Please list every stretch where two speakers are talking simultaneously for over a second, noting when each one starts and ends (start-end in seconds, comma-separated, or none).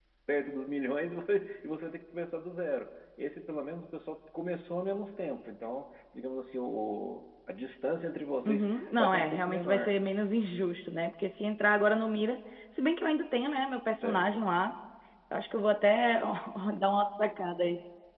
8.4-10.0